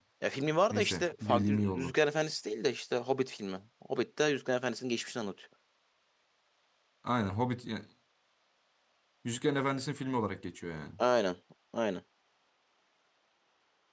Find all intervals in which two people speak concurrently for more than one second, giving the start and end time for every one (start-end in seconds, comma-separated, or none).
0.7-1.9